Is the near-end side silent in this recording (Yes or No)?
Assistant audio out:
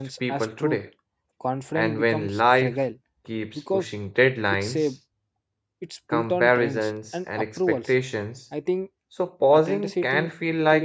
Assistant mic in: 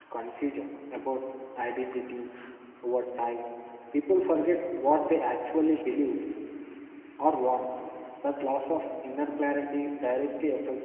No